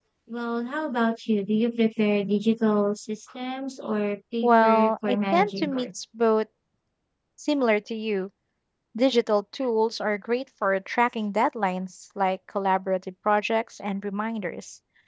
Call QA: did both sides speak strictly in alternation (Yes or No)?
No